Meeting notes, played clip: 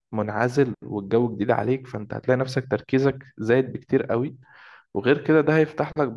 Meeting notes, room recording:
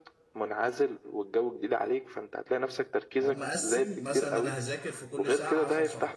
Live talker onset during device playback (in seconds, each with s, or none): 3.2 s